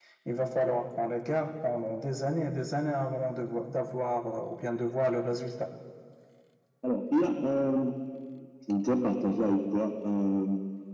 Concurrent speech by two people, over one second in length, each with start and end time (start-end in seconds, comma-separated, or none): none